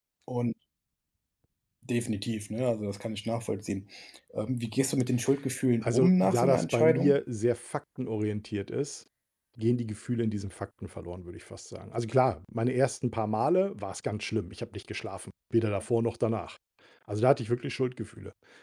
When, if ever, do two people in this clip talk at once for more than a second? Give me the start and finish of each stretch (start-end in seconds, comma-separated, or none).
5.8-7.2